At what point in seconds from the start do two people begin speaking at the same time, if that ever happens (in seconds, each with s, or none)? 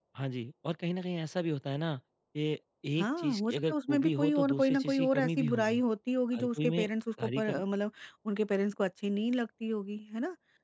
3.0 s